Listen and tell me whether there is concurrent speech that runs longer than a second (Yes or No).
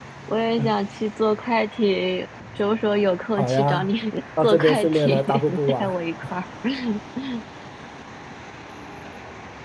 Yes